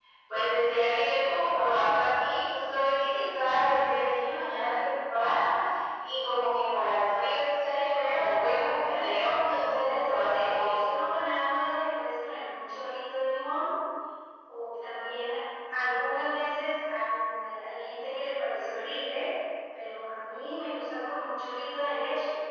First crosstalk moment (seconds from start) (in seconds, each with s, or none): 7.9 s